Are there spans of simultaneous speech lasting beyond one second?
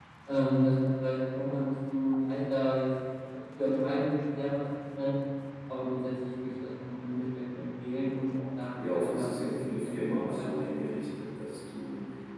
Yes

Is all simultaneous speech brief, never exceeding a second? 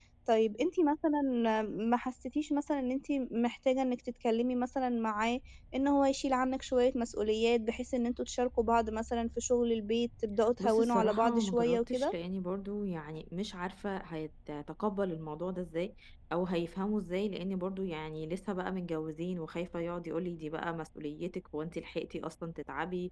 No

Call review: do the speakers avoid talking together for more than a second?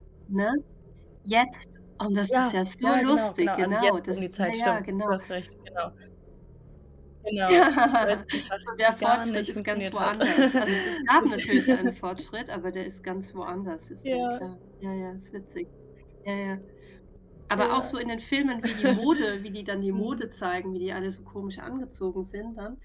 No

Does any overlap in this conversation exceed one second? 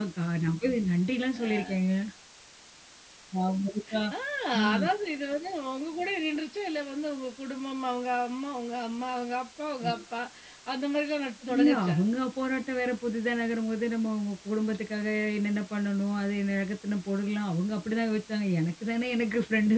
No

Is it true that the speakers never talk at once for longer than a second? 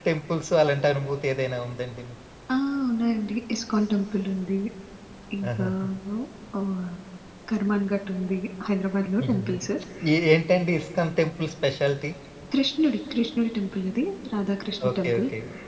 Yes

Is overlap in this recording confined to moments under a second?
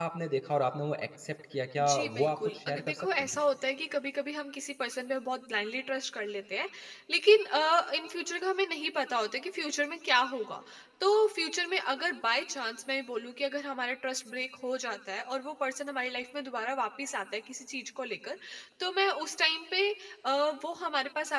No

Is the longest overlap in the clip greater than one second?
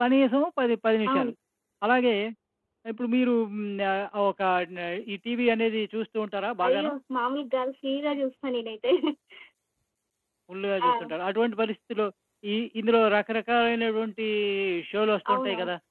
No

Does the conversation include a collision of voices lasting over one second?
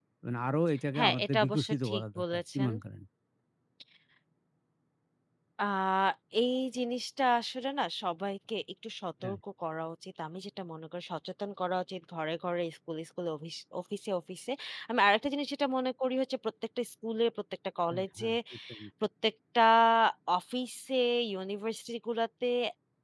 Yes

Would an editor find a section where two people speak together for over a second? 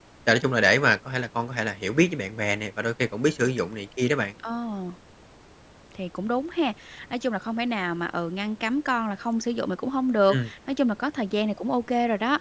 No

